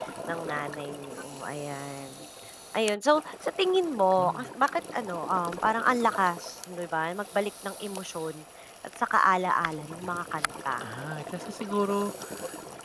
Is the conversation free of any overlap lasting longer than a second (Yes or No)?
Yes